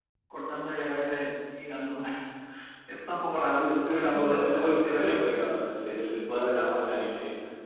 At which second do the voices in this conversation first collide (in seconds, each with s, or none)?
3.5 s